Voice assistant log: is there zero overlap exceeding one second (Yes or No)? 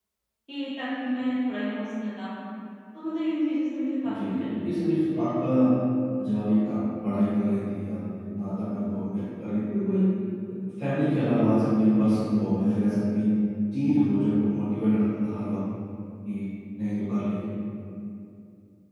No